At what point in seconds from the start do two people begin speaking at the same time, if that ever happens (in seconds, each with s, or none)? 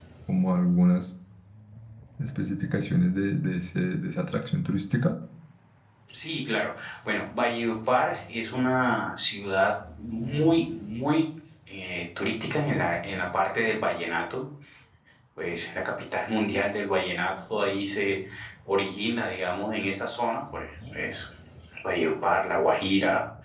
none